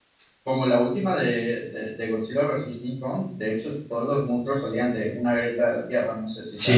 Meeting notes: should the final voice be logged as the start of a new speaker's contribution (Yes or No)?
Yes